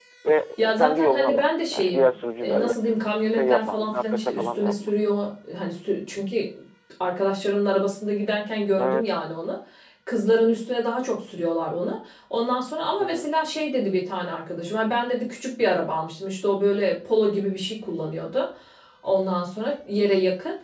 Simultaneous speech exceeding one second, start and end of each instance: 0.6-2.7, 3.4-4.9

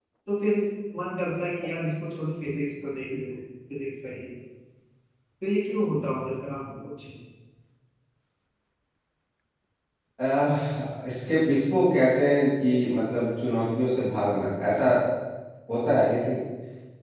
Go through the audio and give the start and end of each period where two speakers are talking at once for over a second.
none

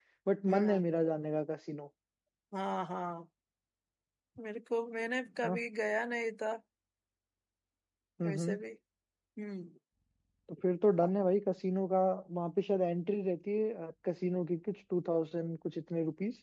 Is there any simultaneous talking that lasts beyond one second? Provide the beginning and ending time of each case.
none

